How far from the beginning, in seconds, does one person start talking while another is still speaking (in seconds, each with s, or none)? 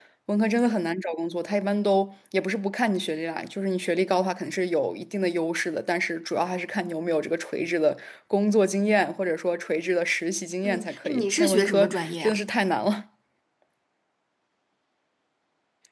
10.6 s